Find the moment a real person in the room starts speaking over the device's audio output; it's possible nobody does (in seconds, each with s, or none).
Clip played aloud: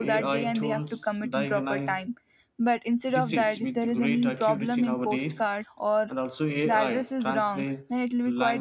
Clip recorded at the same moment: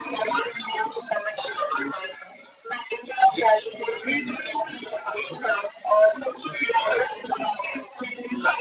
none